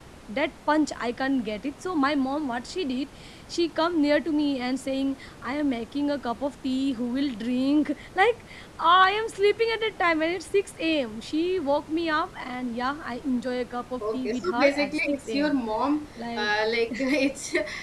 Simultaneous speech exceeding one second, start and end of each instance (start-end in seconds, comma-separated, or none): 14.0-15.6